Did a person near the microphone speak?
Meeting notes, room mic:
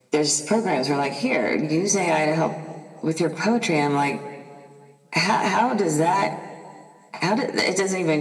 No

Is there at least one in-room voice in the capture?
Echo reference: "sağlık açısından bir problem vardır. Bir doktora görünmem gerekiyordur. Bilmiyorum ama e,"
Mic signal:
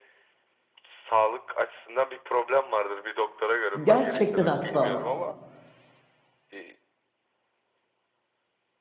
Yes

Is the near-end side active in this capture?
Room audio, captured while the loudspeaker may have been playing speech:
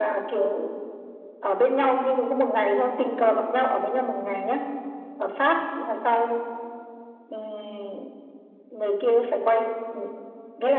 No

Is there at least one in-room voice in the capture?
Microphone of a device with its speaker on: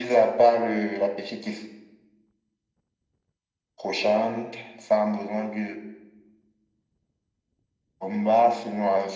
No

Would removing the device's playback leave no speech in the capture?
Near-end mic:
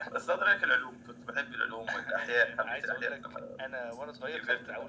Yes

